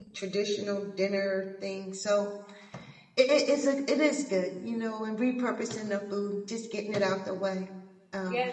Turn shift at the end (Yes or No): Yes